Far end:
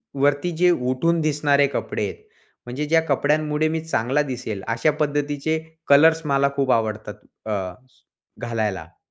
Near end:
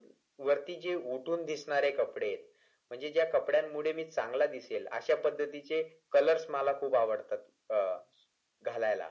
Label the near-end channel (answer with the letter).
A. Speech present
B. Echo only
B